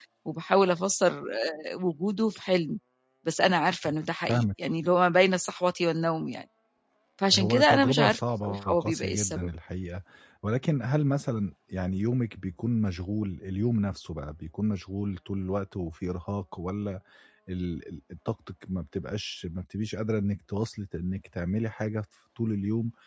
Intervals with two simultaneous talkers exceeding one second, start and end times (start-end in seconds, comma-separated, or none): 7.3-9.5